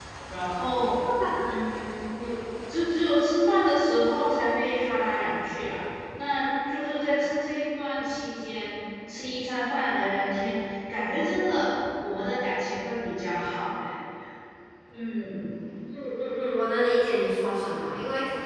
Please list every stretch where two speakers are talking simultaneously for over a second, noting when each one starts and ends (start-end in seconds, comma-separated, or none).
none